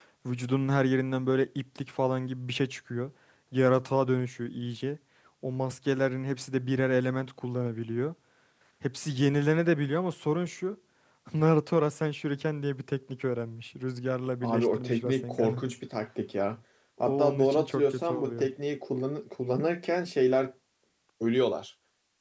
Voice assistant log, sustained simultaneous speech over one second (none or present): present